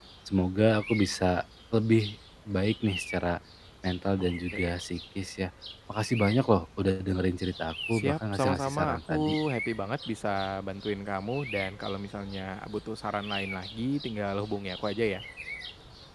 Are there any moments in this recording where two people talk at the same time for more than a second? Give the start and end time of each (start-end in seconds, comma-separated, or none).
7.9-9.2